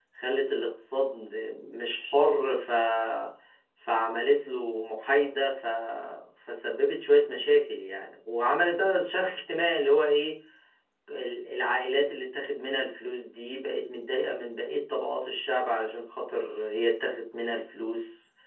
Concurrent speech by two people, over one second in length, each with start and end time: none

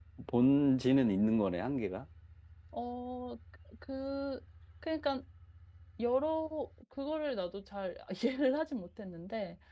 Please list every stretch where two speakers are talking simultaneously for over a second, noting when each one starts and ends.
none

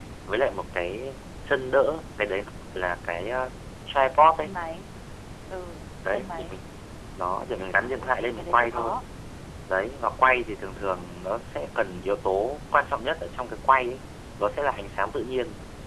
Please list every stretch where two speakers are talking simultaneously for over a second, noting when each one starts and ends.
7.8-9.0

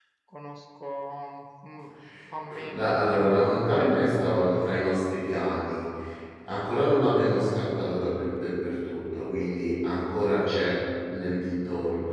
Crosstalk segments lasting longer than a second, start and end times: 2.7-3.9

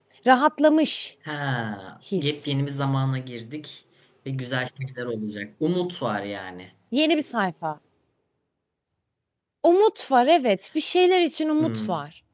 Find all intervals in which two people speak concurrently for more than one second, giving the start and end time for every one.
none

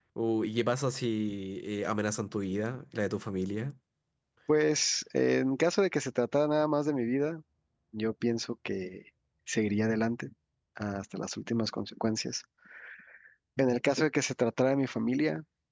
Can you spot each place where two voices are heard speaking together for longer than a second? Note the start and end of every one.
none

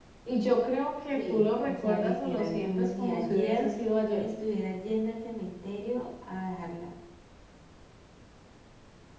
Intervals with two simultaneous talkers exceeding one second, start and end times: 1.1-3.7

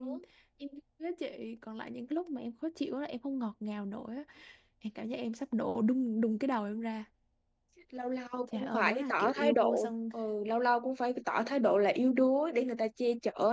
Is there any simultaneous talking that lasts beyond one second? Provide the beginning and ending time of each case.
8.5-9.9

